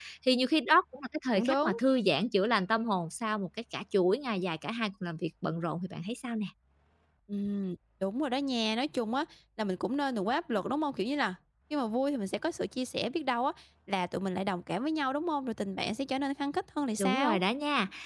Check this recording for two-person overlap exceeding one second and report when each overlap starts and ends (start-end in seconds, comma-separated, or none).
none